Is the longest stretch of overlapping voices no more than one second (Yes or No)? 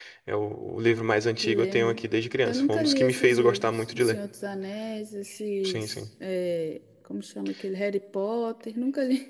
No